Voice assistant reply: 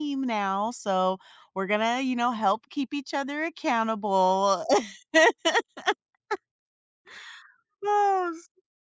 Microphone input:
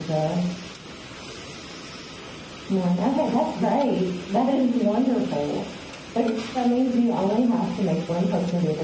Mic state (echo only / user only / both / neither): user only